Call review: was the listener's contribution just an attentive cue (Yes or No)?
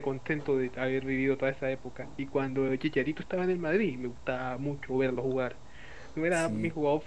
Yes